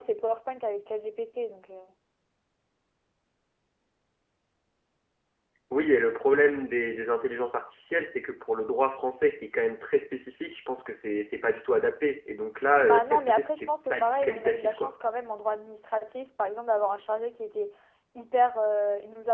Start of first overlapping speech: 12.8 s

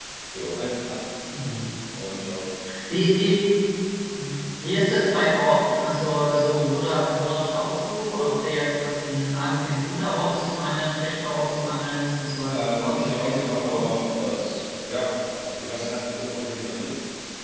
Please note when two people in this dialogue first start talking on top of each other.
12.5 s

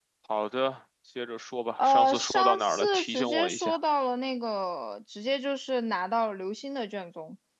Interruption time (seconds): 1.8 s

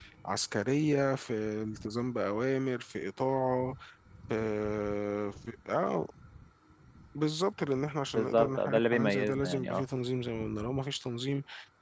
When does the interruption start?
8.2 s

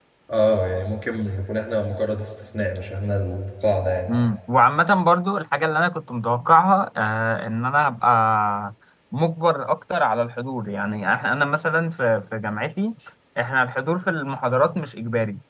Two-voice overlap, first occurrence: none

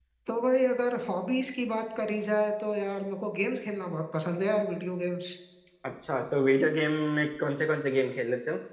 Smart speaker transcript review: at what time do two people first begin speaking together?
none

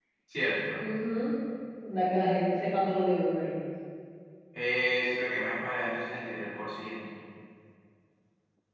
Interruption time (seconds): none

